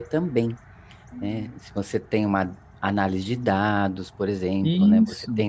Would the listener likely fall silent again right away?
Yes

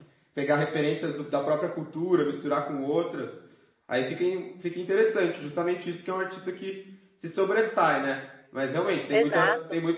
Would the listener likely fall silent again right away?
Yes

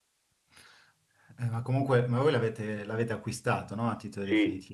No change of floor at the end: No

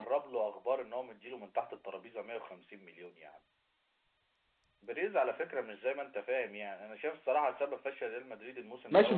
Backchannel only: No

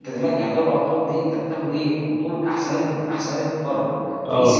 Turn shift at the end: No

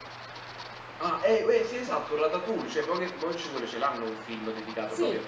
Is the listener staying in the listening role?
No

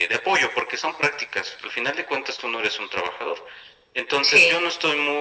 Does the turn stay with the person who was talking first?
Yes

